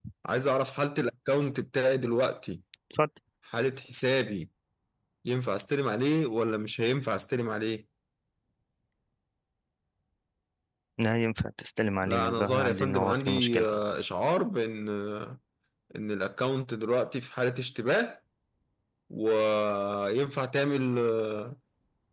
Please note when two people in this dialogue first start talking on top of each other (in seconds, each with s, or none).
12.0 s